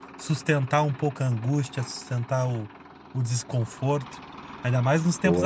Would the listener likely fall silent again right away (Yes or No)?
Yes